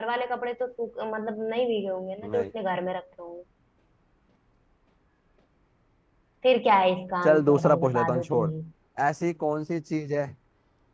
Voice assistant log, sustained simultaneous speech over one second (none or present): present